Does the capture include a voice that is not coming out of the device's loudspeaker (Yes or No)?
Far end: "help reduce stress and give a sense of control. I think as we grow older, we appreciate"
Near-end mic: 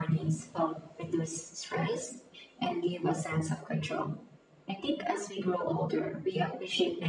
No